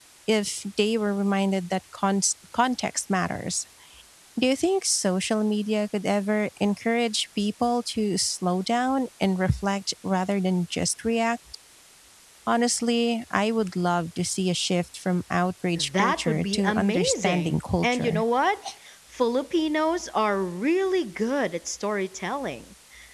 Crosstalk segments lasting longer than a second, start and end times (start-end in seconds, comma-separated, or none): 16.0-18.2